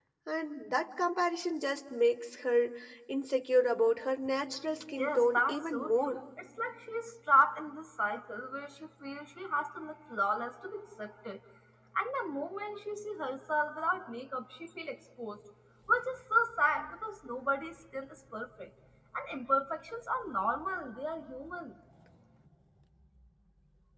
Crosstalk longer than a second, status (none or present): present